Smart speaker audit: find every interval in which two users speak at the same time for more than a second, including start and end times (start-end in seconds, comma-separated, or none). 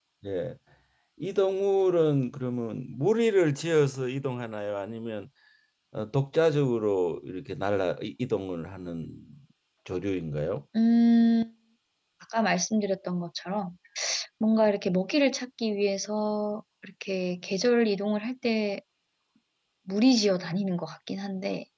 none